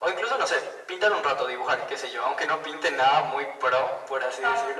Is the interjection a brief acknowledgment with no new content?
No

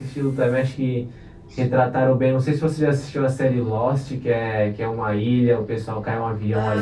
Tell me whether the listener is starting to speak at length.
Yes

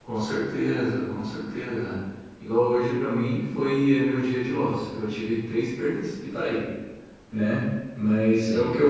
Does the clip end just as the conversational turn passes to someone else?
No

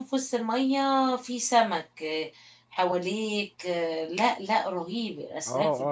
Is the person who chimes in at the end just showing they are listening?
No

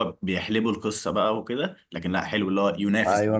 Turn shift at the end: Yes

